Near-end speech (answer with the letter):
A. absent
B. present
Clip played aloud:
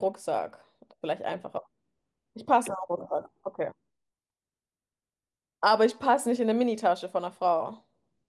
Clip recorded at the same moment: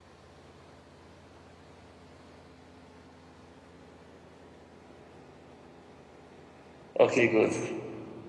B